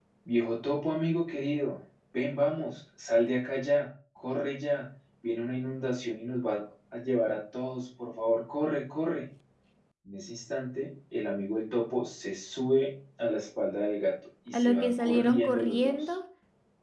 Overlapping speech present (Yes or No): Yes